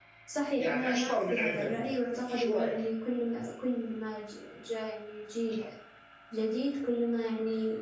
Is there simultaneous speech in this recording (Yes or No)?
Yes